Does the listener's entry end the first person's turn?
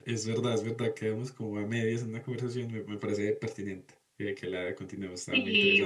Yes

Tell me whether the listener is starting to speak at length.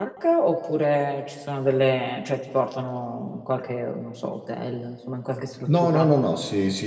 Yes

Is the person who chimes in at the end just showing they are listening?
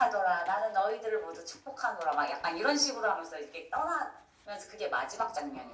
No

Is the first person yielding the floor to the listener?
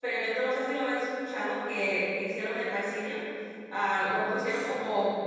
No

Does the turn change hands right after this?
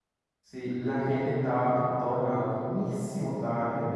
No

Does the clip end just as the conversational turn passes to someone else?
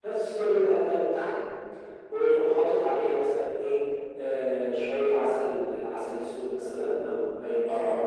No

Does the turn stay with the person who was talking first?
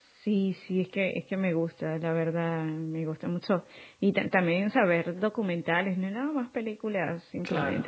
Yes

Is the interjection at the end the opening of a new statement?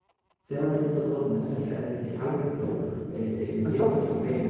Yes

